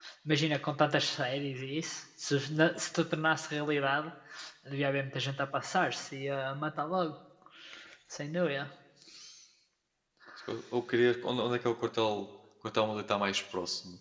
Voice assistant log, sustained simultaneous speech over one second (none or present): none